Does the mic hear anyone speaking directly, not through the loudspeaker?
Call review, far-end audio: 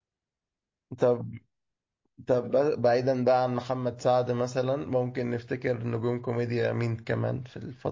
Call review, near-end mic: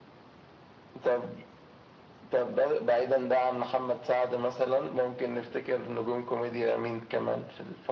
No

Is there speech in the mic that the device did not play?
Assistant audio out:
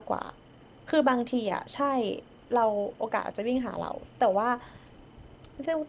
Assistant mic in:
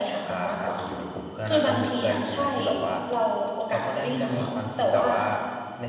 Yes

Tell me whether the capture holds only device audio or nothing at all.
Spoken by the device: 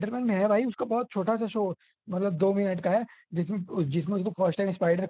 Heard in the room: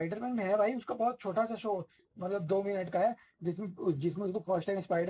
Yes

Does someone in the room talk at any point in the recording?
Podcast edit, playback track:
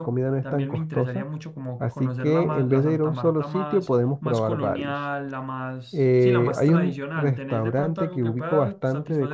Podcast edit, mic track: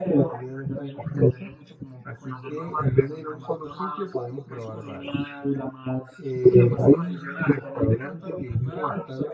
No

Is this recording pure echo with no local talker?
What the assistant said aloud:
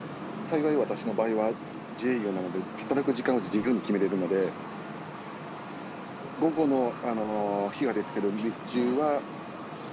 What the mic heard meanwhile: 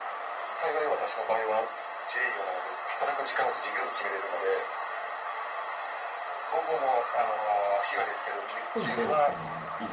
No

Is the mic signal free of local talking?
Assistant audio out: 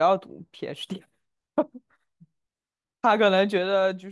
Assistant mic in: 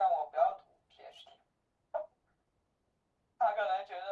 Yes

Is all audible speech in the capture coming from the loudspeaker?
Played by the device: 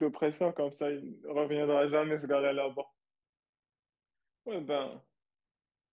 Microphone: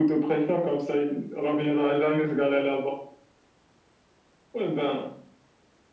Yes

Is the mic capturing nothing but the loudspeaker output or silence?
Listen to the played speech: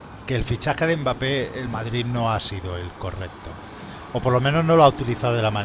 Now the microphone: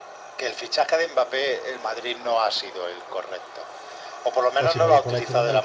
No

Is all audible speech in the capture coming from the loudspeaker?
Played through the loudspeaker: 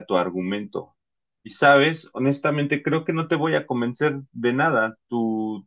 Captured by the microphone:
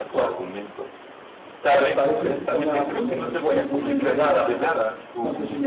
No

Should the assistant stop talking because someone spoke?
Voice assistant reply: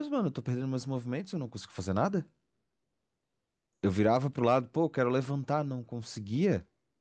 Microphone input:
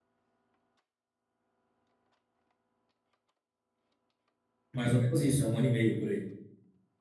Yes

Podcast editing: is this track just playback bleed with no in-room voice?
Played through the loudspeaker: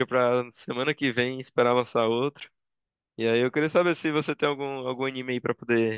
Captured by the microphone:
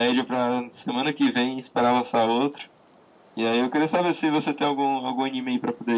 Yes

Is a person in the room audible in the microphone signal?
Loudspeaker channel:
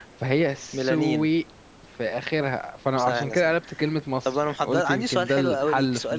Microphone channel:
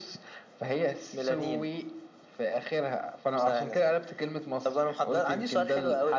No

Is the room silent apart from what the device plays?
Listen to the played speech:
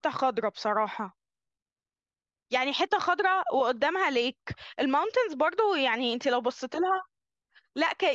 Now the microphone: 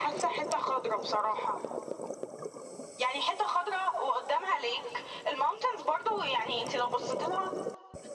Yes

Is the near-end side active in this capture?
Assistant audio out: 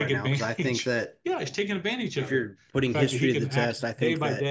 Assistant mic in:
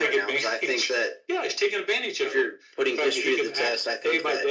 No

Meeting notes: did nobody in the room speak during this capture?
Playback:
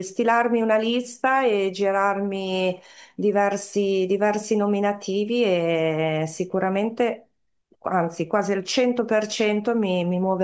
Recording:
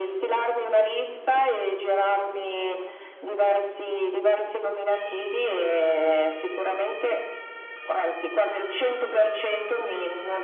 Yes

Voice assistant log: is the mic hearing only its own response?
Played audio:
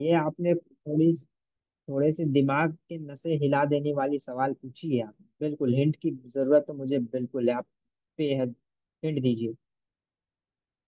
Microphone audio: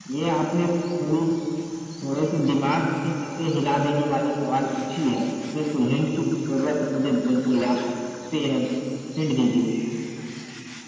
Yes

